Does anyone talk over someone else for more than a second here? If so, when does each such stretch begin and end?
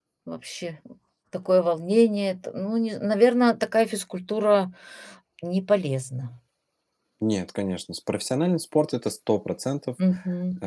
none

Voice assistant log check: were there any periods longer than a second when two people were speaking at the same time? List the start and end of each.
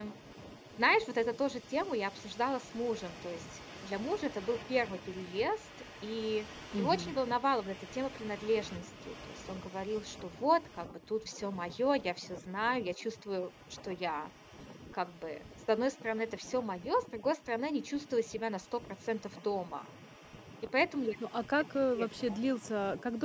none

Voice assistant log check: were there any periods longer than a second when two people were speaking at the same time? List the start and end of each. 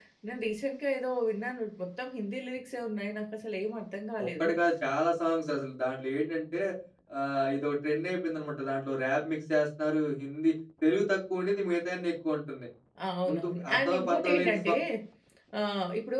13.3-14.7

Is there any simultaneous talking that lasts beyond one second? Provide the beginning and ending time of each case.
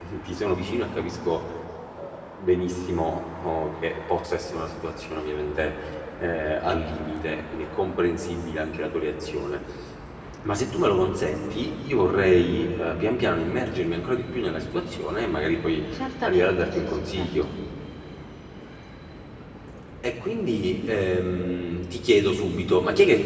16.2-17.5

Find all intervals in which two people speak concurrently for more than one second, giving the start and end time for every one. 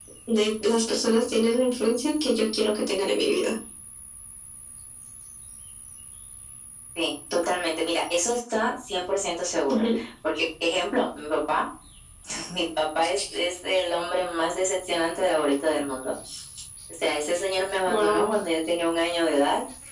none

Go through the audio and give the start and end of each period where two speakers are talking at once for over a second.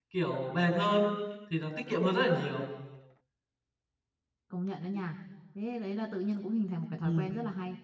none

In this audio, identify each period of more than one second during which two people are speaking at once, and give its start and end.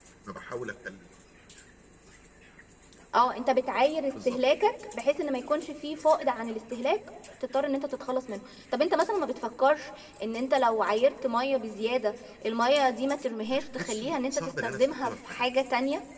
13.7-15.4

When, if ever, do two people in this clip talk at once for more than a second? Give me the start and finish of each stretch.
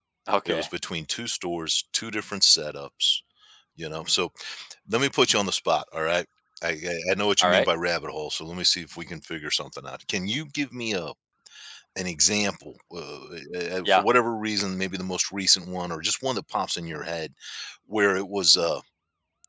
none

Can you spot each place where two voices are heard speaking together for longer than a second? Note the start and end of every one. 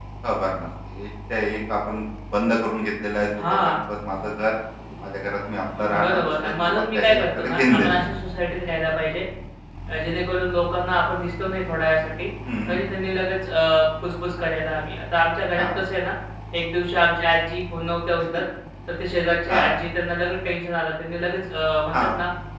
5.9-8.0

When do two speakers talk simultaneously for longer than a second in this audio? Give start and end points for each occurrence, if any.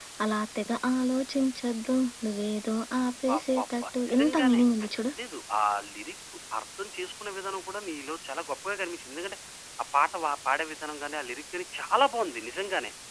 3.4-4.6

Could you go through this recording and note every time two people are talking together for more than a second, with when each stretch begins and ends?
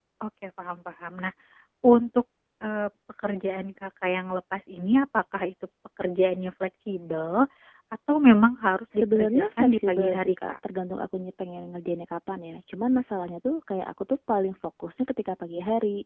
8.9-10.5

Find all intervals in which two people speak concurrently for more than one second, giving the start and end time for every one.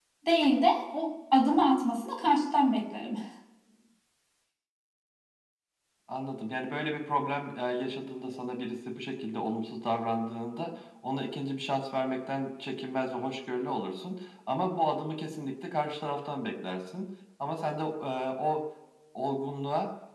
none

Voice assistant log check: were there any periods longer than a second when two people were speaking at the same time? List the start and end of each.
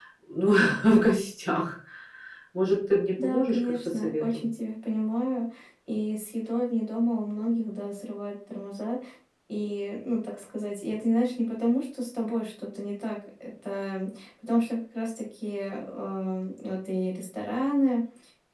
3.2-4.4

